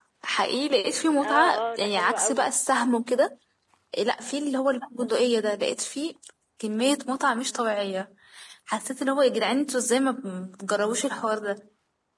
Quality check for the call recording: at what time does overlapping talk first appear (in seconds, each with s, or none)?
1.2 s